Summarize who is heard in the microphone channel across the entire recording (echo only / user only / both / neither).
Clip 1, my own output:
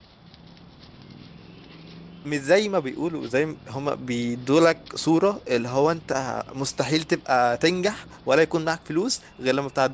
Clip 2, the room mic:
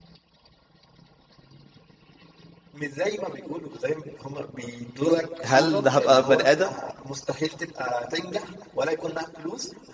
both